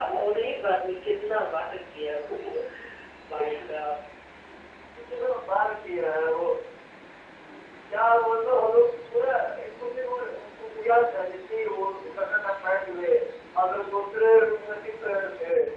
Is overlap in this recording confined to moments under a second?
Yes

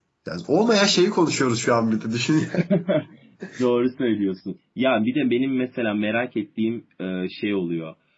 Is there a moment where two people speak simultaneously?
No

